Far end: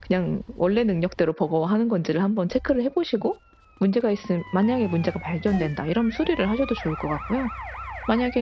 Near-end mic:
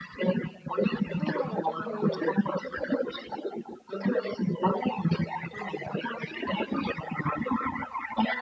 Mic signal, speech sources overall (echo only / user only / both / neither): both